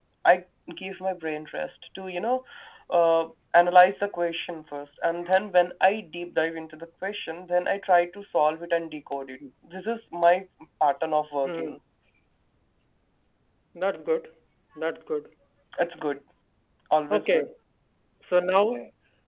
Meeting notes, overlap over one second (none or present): none